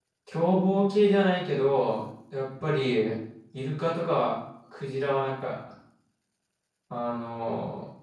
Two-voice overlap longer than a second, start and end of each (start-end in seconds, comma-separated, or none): none